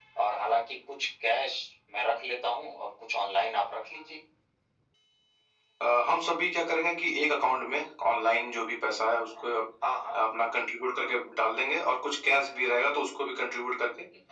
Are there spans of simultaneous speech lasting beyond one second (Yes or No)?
No